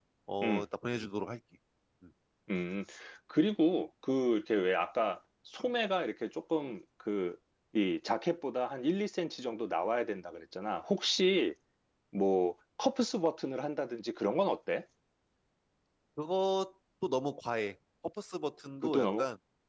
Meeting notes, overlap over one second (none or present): none